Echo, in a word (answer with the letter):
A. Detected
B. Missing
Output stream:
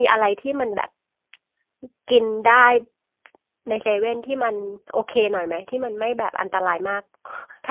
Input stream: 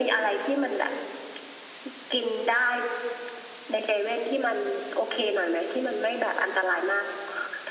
A